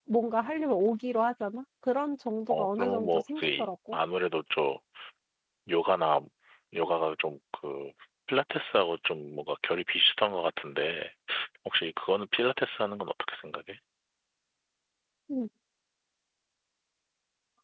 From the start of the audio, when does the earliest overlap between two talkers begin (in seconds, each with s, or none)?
2.5 s